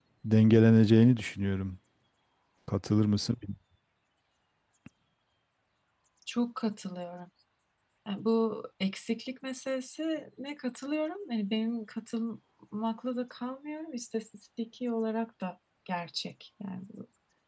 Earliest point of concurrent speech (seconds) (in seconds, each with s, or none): none